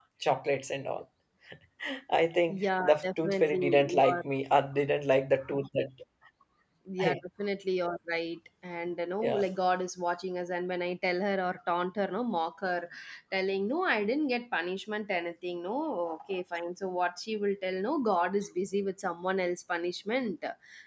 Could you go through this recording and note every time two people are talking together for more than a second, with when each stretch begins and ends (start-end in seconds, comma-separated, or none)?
2.5-4.2